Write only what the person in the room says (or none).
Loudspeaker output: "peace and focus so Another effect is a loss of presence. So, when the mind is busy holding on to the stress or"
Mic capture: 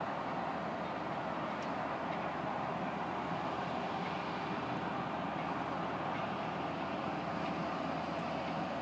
none